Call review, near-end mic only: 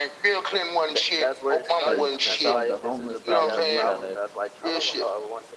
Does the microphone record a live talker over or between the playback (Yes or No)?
Yes